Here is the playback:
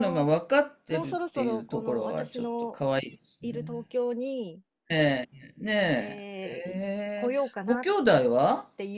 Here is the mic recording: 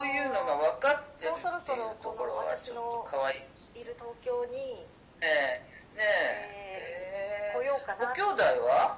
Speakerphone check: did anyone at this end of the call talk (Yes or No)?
No